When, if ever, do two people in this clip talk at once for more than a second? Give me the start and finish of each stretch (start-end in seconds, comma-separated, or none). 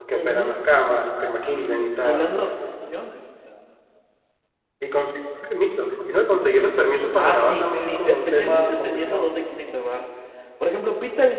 7.1-9.4